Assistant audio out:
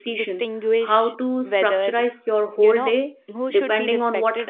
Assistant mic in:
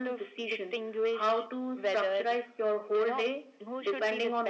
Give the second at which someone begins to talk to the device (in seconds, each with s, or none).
none